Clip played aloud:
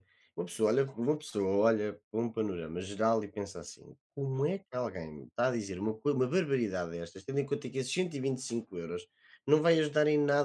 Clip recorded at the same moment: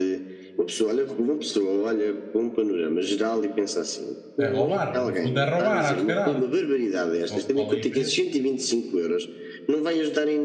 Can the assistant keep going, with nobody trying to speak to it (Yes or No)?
No